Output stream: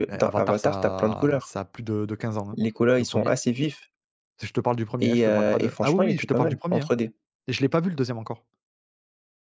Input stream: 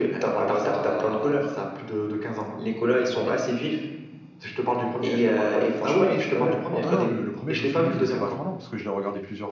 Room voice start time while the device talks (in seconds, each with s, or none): 6.8 s